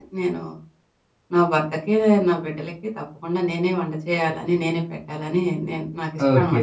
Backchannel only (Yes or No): No